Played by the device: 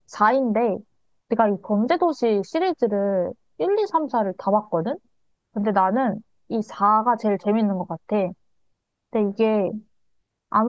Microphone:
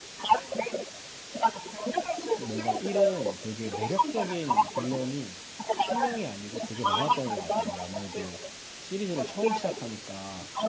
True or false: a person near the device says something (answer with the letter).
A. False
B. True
B